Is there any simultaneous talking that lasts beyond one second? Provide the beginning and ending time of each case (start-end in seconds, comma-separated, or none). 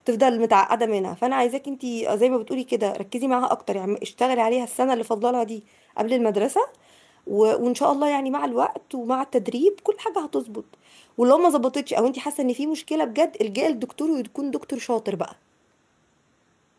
none